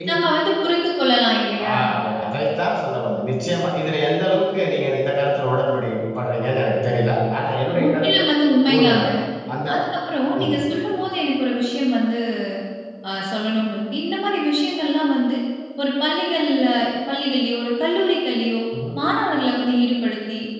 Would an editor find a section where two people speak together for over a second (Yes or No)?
No